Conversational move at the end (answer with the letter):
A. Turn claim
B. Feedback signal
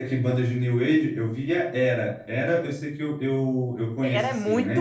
A